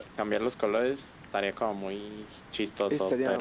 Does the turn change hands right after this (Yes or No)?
Yes